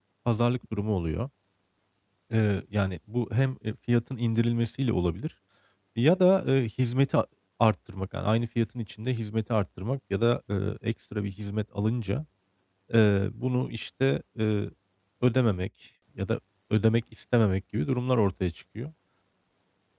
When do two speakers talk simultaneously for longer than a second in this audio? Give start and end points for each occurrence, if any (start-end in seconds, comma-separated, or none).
none